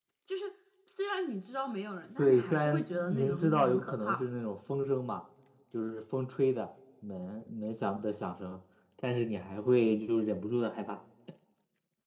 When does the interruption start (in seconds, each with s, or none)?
2.2 s